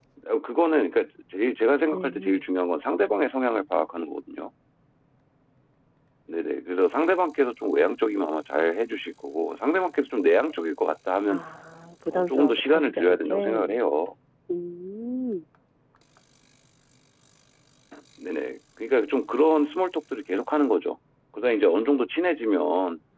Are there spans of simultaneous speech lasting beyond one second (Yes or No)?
Yes